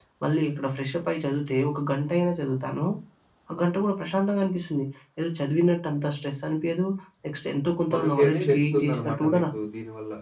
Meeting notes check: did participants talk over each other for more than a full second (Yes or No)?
Yes